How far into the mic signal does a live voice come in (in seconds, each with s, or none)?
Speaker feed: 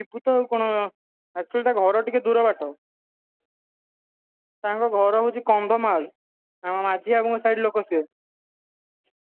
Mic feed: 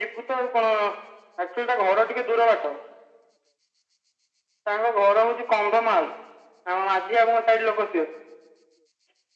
none